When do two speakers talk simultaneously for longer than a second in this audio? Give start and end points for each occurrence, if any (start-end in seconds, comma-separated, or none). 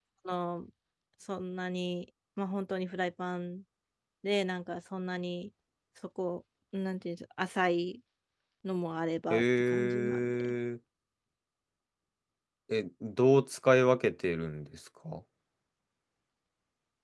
9.3-10.5